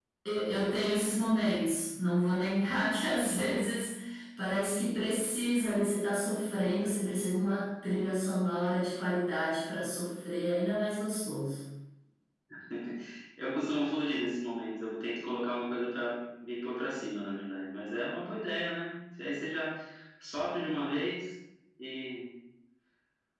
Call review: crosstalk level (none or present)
none